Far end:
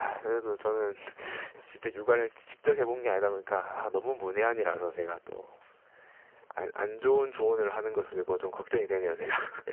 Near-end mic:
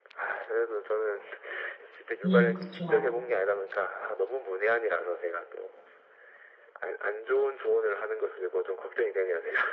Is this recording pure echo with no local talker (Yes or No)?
No